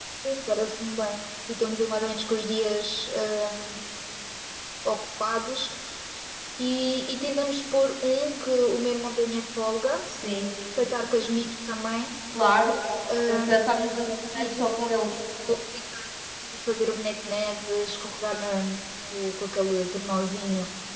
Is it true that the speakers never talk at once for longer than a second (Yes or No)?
Yes